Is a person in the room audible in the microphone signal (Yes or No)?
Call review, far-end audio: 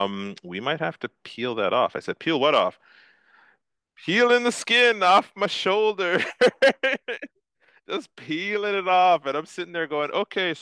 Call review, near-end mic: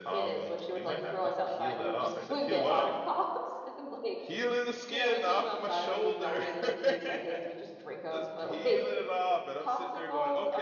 Yes